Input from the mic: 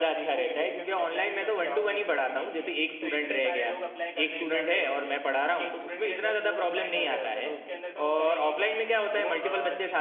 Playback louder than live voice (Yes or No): No